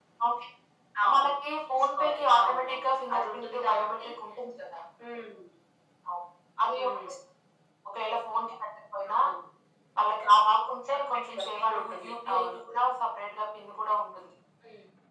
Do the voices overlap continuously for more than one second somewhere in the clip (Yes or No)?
Yes